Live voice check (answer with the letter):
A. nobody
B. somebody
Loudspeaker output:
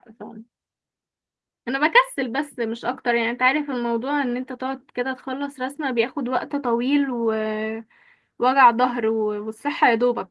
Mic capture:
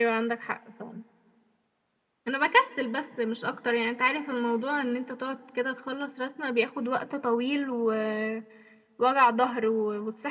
A